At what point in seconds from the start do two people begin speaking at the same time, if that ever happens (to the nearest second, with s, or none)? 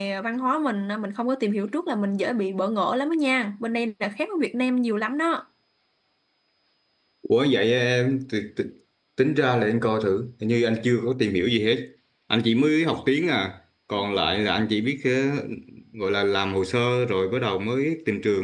none